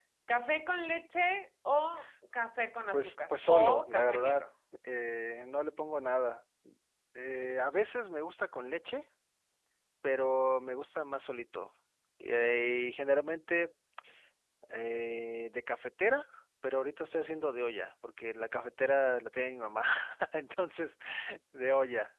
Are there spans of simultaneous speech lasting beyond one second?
Yes, from 2.9 s

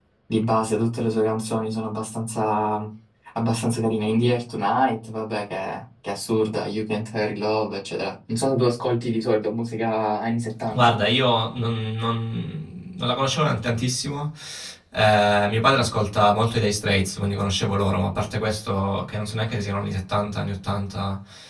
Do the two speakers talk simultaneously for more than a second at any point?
No

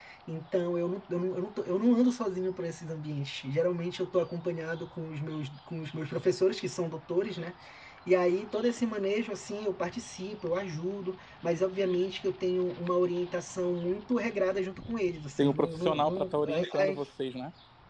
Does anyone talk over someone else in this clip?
Yes, from 15.4 s

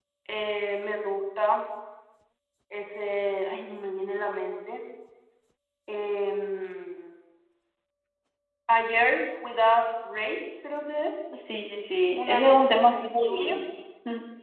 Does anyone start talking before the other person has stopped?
Yes, from 12.2 s

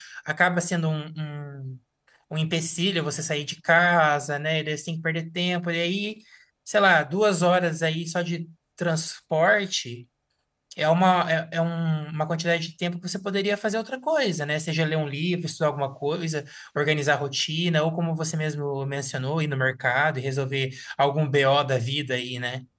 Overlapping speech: No

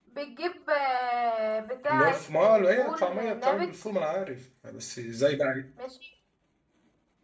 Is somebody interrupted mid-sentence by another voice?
Yes, from 1.9 s

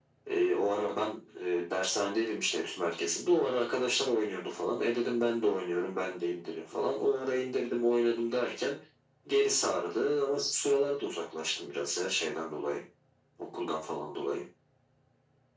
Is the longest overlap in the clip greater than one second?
No

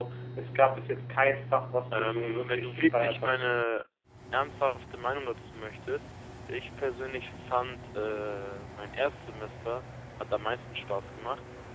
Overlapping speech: Yes, from 1.9 s

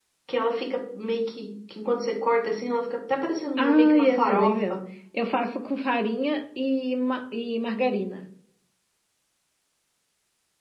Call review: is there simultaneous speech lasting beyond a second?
Yes, from 3.6 s

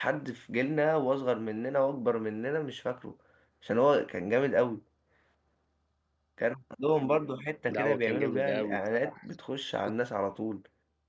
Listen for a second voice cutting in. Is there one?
Yes, from 7.7 s

